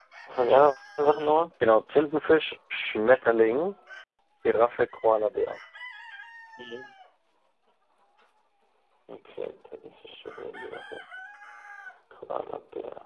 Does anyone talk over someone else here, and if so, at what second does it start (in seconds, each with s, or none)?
none